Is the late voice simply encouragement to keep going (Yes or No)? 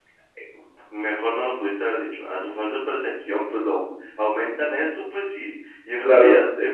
Yes